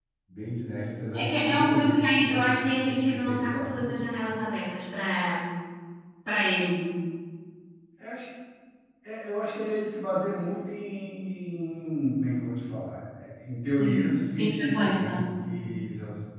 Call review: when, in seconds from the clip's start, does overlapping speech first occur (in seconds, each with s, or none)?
1.2 s